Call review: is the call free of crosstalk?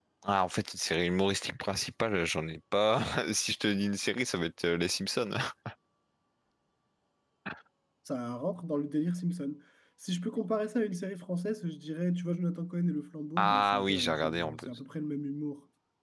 No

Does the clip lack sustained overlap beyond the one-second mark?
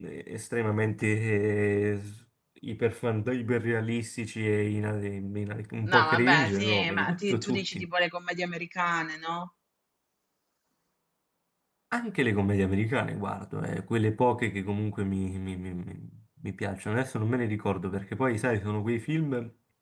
No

